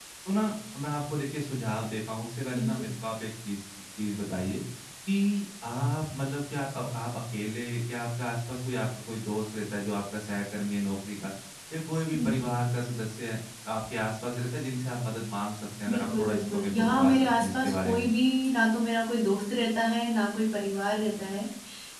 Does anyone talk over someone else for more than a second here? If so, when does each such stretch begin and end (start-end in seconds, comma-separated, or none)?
15.9-18.1